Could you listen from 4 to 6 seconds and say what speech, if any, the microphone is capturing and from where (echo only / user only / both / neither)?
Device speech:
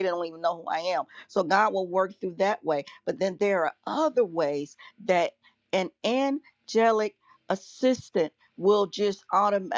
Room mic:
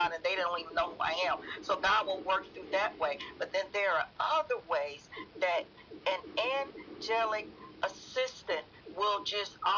echo only